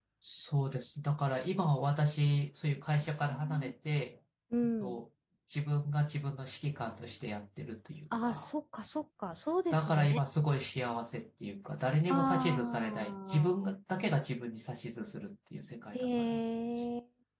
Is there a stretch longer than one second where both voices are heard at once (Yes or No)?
Yes